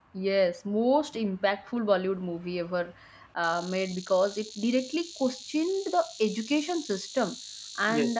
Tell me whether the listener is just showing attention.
Yes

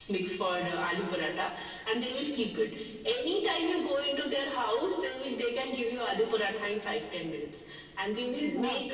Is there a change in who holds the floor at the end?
No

